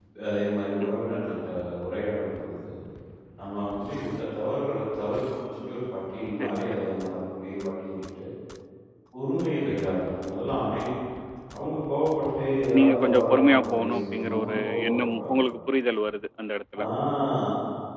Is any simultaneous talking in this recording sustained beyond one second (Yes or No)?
Yes